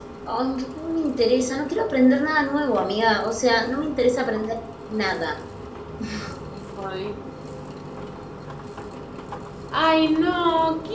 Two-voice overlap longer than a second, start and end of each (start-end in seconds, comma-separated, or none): none